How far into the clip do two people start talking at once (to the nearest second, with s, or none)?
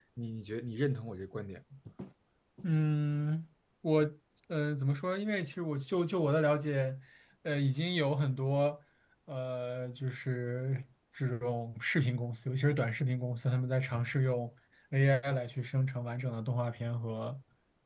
none